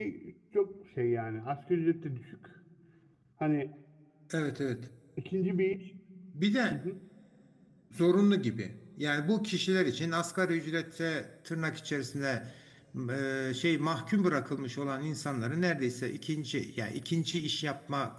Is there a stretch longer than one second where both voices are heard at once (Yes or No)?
No